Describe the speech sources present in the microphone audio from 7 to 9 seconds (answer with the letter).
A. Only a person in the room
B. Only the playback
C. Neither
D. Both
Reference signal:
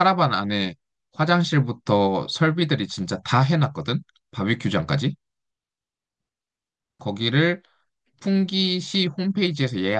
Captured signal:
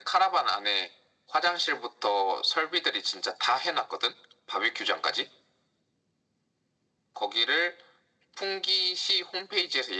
B